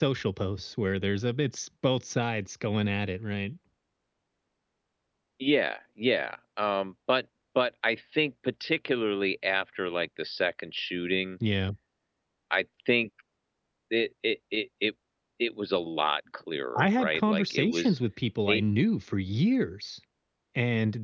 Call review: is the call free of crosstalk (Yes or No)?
No